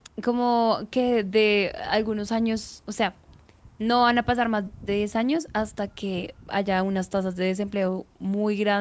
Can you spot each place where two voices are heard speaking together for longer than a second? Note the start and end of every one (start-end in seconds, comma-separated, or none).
none